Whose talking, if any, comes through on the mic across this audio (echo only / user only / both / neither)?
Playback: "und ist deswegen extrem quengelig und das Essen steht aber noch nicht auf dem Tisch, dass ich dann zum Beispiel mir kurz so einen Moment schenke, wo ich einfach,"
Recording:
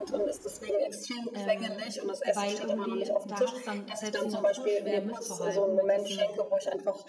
both